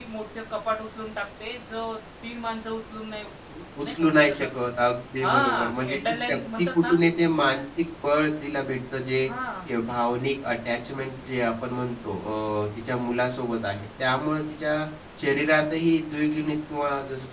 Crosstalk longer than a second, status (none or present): present